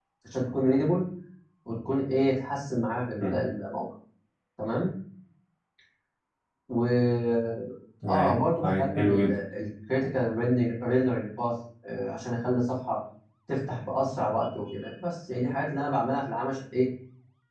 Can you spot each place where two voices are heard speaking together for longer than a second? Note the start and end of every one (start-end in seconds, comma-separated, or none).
8.1-9.3